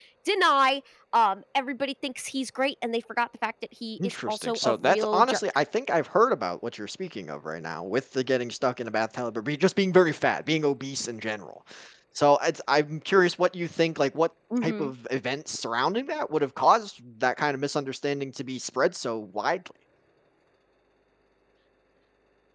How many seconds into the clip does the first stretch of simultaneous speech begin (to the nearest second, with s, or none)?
4 s